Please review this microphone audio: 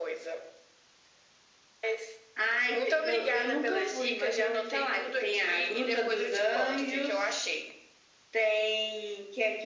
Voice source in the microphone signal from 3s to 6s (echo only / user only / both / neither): echo only